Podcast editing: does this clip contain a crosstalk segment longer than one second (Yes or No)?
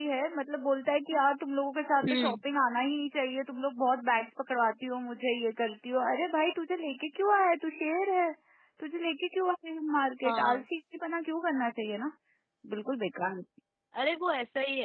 No